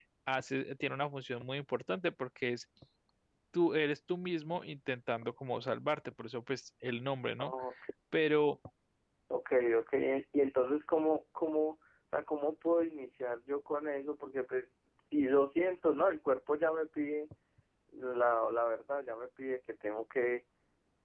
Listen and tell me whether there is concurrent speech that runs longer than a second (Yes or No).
No